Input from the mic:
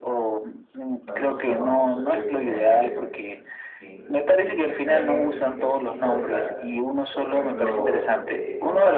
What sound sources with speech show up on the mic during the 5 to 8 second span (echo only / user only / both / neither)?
both